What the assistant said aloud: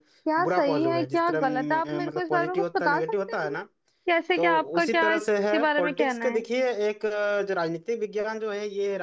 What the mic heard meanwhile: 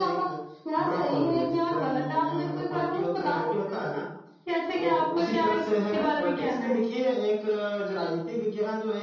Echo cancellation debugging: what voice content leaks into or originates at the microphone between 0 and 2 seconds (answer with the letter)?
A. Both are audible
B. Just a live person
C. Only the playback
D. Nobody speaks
C